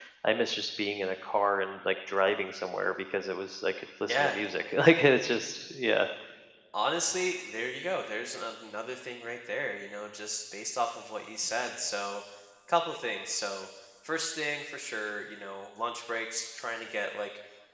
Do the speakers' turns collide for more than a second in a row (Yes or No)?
No